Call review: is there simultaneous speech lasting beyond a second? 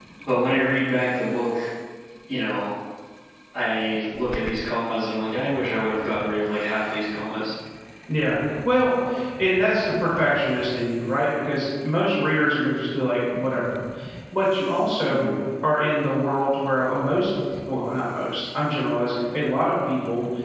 No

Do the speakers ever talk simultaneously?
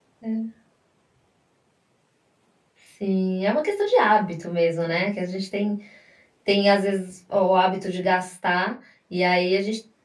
No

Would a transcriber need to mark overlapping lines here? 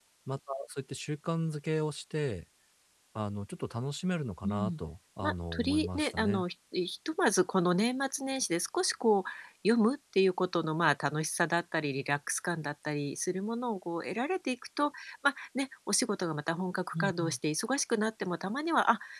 Yes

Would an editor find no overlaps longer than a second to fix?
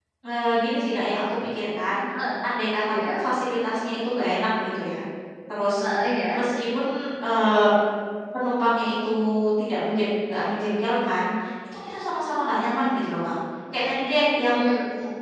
Yes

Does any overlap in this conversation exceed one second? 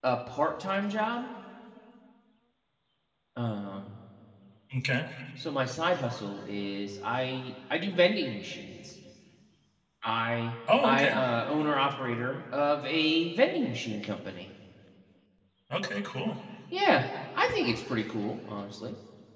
No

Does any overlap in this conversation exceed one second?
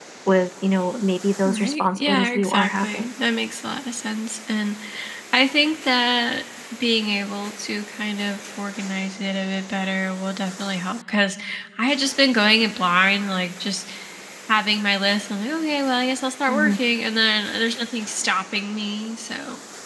Yes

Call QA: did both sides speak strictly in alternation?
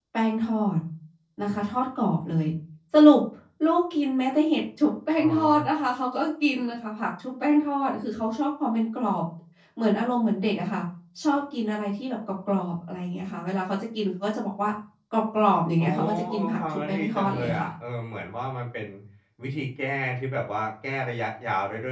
No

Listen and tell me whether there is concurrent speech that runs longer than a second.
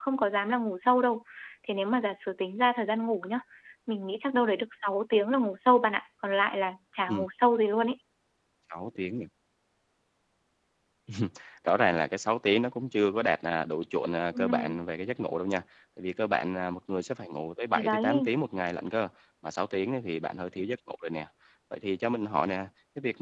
No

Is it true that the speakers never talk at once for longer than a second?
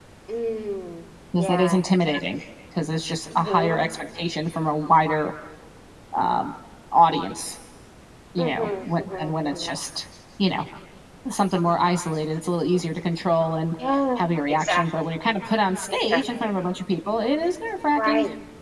No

